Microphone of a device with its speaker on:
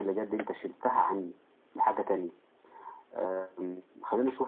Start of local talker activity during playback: none

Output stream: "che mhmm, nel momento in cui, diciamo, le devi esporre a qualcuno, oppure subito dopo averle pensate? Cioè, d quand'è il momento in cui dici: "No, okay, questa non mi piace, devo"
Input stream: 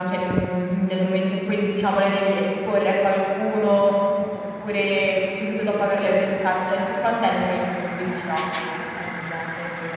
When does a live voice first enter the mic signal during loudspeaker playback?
none

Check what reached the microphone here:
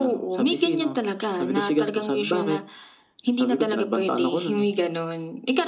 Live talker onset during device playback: none

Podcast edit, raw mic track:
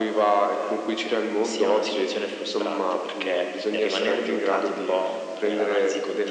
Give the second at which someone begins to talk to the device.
none

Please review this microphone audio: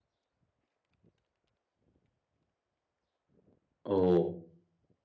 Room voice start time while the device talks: 3.8 s

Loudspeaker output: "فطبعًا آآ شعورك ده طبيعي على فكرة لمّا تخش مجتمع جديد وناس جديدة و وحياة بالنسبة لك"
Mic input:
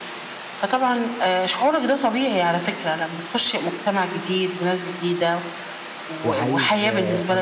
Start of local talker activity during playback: 6.2 s

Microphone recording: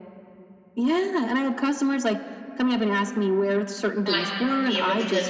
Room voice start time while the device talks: 4.1 s

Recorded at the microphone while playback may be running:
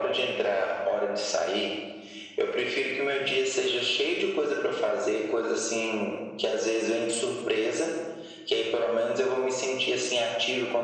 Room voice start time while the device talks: none

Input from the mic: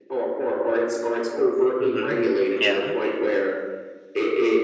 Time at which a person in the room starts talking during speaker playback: 1.8 s

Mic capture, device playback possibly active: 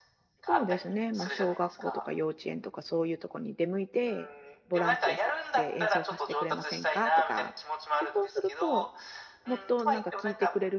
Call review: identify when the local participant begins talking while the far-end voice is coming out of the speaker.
0.4 s

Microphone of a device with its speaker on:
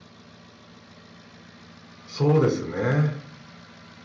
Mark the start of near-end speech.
2.1 s

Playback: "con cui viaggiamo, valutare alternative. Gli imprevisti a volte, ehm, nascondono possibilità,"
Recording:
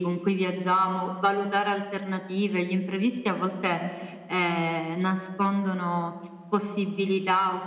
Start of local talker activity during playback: none

